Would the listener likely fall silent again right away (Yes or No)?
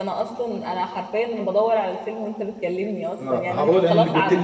No